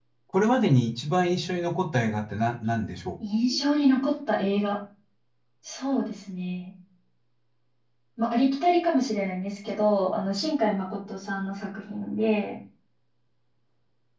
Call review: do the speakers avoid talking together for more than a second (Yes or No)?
Yes